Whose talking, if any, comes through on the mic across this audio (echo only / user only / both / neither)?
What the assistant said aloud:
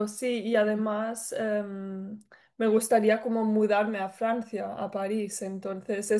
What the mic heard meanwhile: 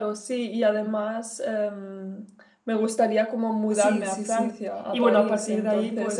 both